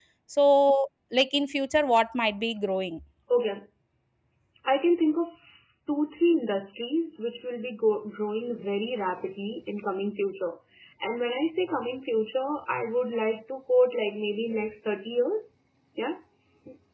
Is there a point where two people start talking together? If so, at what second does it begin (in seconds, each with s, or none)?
none